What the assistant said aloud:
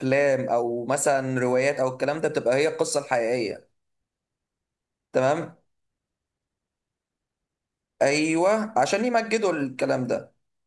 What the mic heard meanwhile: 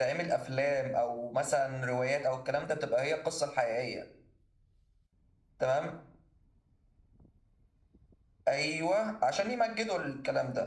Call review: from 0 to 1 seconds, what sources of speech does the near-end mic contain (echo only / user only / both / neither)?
echo only